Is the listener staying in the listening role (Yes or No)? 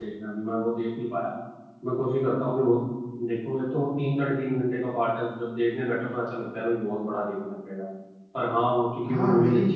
No